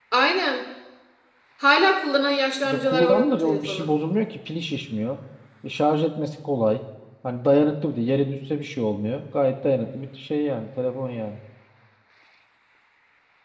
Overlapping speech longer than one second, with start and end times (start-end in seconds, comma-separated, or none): 2.6-3.9